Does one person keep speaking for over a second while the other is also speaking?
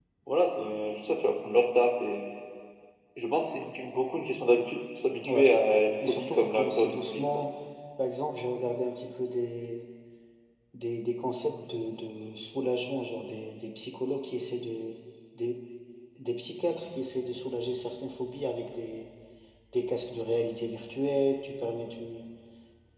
Yes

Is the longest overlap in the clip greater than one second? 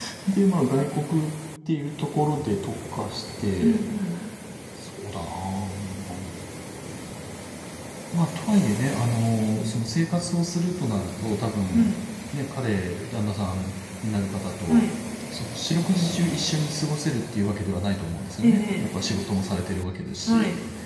No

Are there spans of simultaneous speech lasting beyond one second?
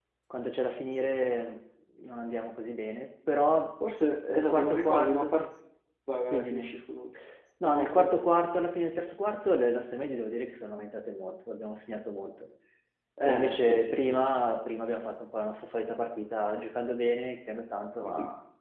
Yes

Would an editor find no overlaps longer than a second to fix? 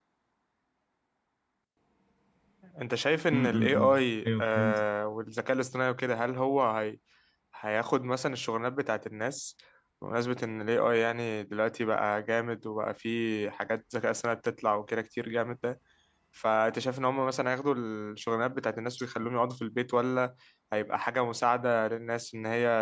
No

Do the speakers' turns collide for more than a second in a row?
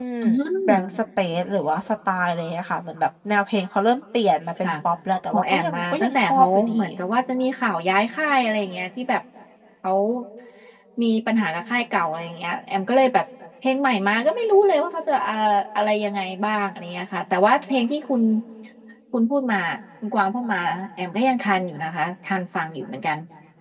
Yes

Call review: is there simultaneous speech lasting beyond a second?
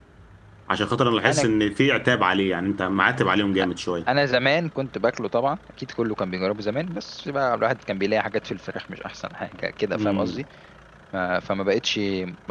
No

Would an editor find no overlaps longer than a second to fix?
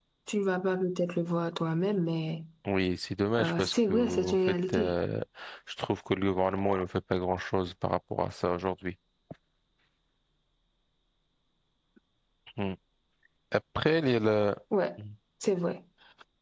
No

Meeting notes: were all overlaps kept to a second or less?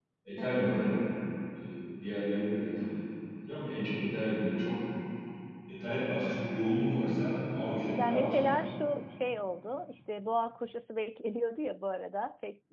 Yes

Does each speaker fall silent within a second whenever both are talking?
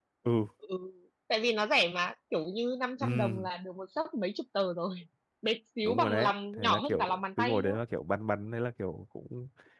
No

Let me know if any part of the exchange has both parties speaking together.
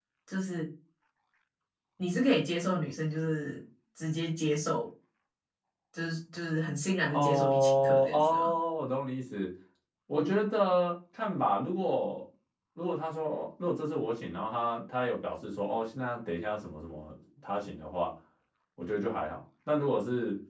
Yes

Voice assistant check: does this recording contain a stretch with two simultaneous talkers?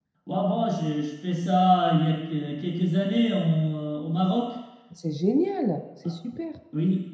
No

